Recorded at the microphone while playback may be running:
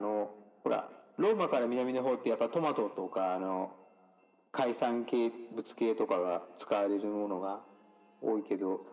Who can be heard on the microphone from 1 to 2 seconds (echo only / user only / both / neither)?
echo only